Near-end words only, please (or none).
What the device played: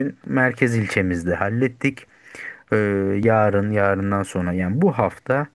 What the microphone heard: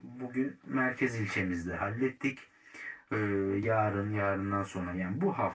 none